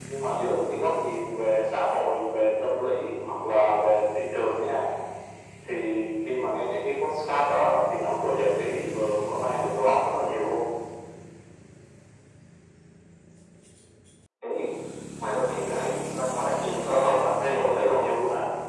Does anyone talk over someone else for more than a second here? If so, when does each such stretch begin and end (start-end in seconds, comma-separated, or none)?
16.6-18.1